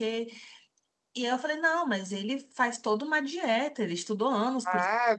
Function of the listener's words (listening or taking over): taking over